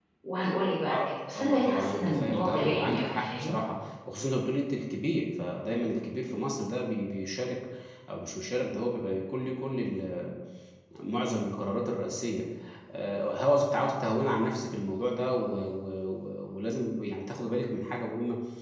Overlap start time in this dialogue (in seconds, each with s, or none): 0.9 s